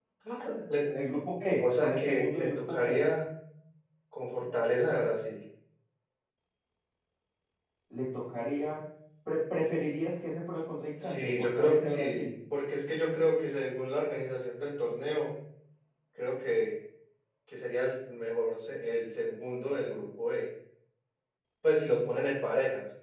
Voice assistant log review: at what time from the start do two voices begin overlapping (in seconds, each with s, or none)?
1.6 s